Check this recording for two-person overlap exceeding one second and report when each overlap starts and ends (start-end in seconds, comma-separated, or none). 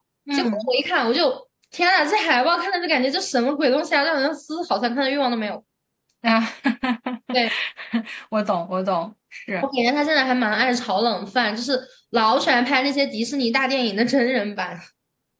none